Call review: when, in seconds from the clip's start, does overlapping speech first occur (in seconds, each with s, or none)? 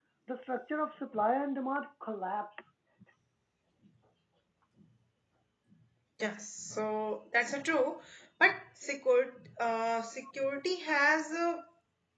none